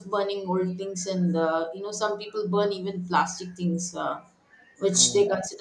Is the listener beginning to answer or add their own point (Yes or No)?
No